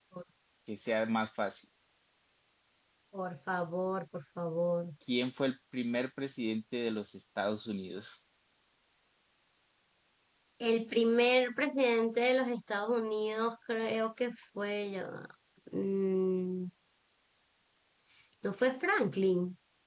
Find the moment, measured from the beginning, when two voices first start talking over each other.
none

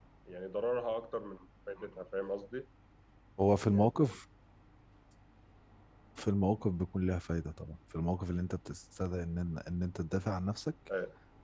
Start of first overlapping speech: none

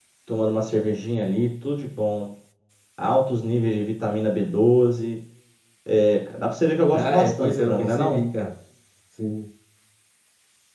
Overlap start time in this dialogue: 7 s

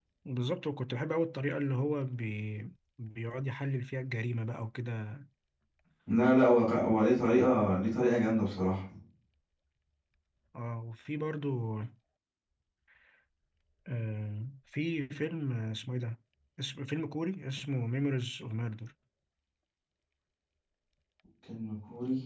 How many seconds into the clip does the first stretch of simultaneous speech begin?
none

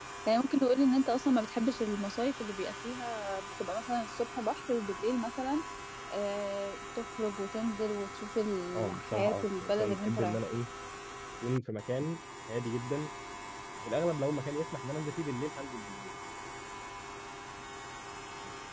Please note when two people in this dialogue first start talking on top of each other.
9 s

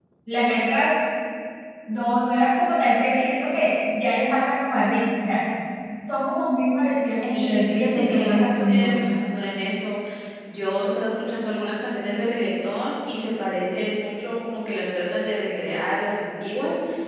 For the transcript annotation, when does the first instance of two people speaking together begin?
7 s

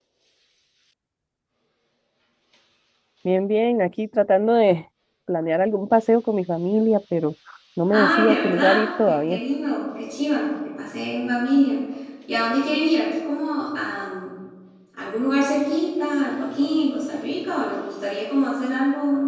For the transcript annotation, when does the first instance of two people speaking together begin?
8 s

